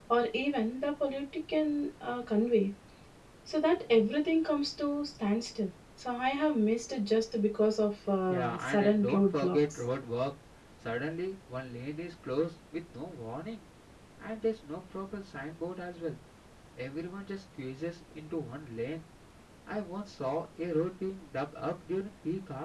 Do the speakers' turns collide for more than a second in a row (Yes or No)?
Yes